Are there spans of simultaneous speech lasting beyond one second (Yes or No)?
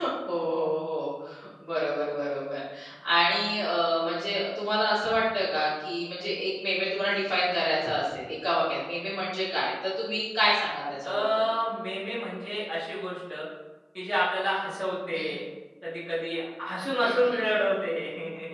No